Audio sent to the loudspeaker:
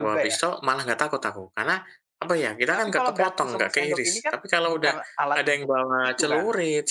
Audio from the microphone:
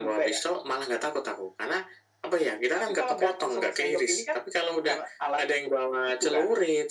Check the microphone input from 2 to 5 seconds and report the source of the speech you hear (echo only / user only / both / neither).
echo only